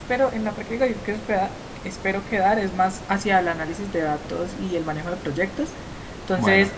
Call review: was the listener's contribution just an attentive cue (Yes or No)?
Yes